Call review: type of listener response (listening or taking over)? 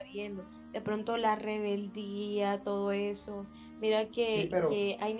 listening